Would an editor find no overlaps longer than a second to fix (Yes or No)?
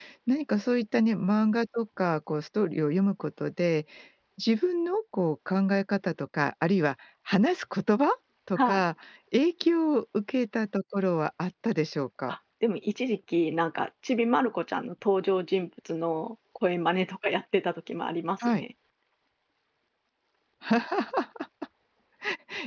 Yes